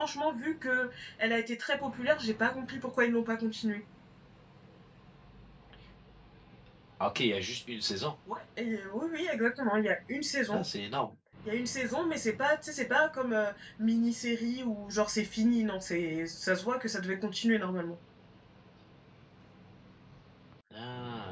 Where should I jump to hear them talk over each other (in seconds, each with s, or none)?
none